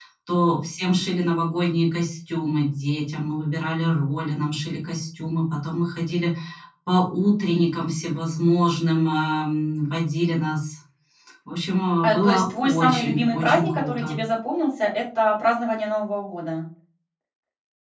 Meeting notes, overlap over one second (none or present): present